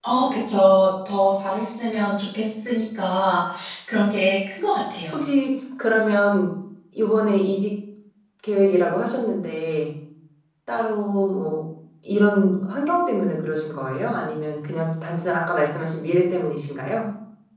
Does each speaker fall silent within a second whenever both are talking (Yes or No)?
Yes